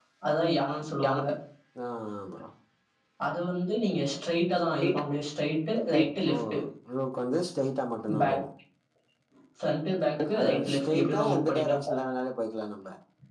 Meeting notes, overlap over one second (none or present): present